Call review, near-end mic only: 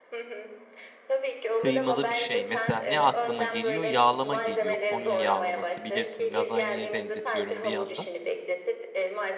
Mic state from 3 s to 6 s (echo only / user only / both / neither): both